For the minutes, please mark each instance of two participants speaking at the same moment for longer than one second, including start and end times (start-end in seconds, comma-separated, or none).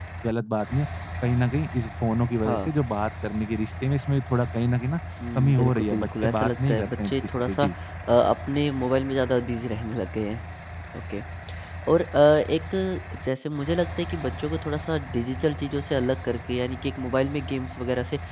5.4-7.6